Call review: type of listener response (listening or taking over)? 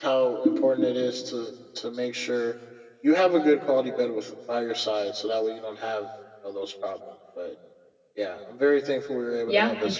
taking over